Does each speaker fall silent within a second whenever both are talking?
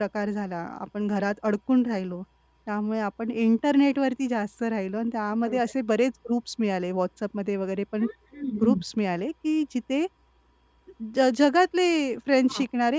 Yes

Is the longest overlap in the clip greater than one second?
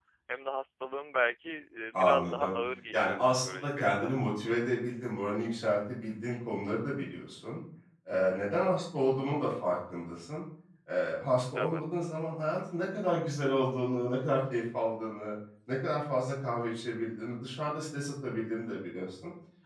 Yes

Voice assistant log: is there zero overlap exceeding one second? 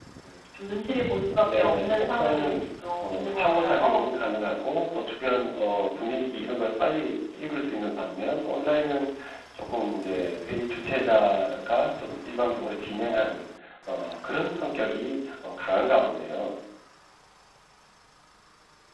No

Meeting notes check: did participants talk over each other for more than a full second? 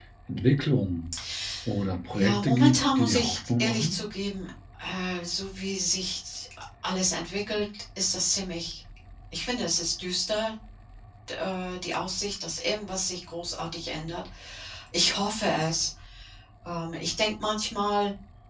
Yes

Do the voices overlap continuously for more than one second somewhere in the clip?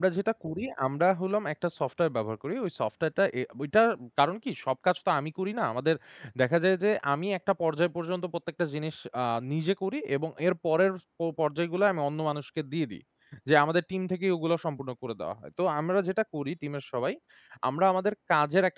No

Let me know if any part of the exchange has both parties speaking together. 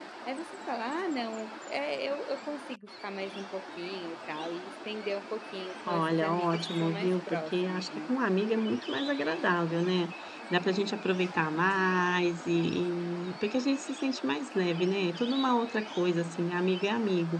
Yes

